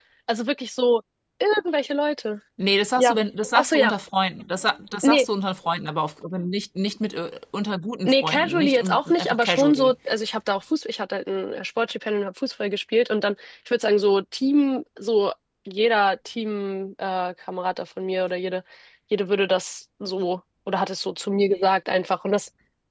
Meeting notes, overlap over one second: present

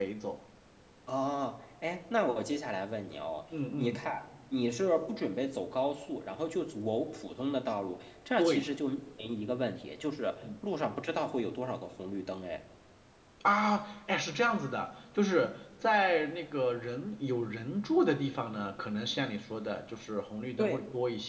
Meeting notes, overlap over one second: none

